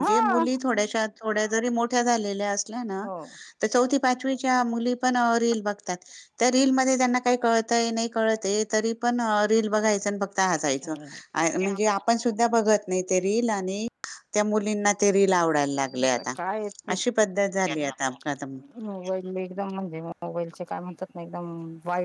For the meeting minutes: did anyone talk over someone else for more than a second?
No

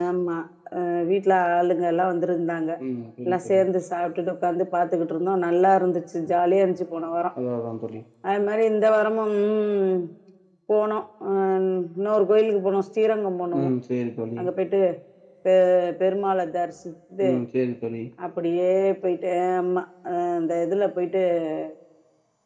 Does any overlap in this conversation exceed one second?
No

